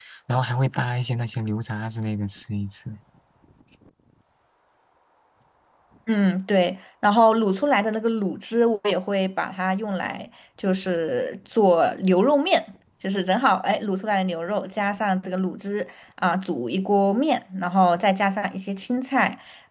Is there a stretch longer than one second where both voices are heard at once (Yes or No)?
No